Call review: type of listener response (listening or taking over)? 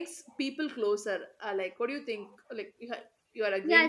taking over